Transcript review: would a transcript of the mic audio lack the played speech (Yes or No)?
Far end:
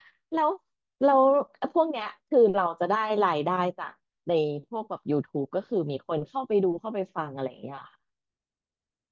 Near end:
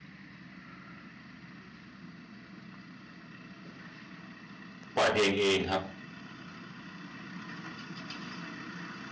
Yes